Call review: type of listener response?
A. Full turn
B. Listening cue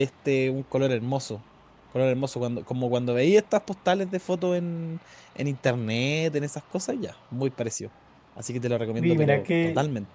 A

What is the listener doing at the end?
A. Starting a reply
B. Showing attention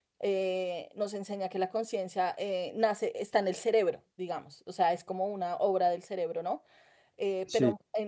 B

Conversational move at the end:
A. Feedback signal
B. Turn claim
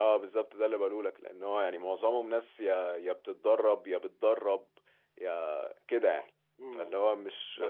B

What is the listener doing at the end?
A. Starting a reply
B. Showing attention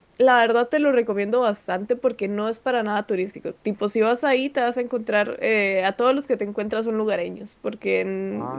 B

